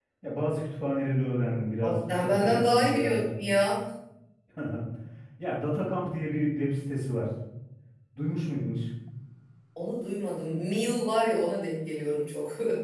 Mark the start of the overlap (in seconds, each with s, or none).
1.8 s